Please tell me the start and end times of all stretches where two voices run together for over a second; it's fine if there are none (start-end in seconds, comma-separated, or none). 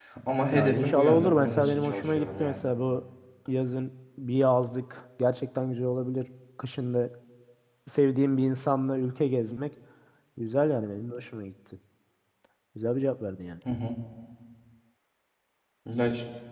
0.5-2.6